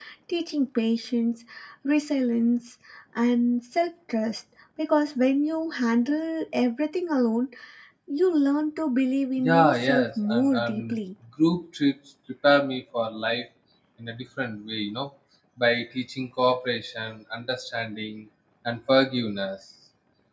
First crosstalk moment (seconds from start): 9 s

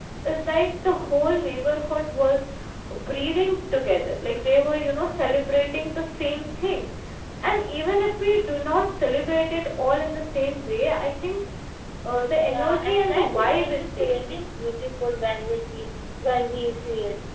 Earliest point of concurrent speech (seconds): 12 s

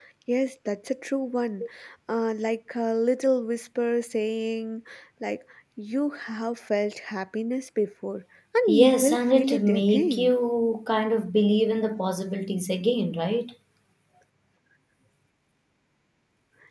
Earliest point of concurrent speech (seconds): 9 s

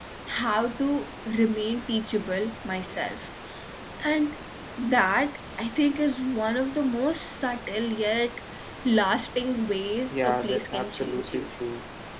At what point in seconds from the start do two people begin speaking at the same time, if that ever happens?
10 s

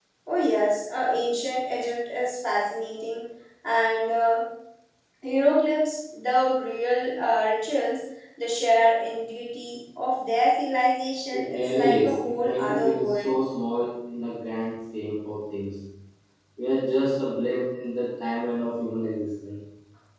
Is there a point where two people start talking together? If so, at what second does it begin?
11 s

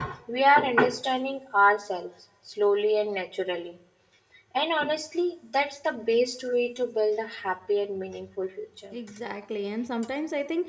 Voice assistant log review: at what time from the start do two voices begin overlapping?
none

